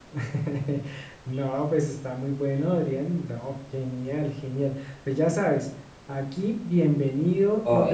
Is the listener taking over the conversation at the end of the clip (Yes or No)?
No